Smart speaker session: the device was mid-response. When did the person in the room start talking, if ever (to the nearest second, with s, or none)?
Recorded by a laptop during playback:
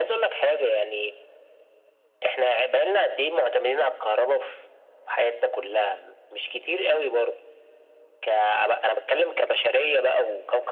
none